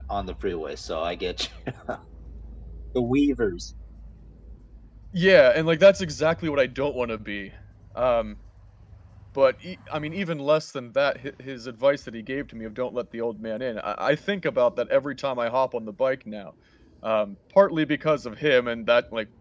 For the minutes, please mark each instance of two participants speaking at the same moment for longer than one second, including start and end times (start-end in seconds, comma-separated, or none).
none